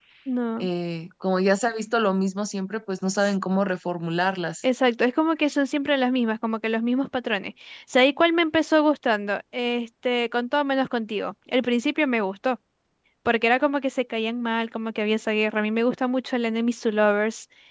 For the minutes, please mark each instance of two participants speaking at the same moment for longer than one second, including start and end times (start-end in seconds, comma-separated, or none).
none